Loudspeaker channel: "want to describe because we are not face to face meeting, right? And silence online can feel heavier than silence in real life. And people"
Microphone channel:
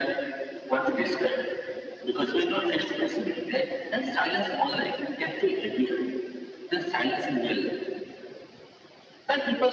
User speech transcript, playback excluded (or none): none